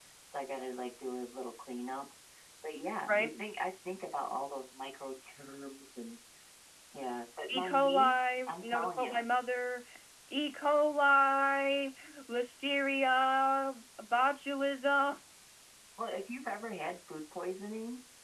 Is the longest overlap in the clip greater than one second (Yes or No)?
Yes